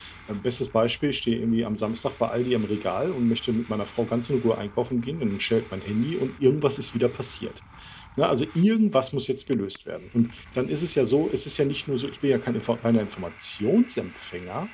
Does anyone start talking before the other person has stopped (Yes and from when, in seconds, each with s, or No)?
No